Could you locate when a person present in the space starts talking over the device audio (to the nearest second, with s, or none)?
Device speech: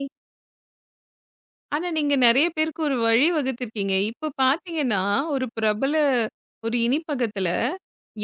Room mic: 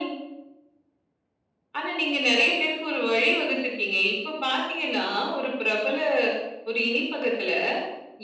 none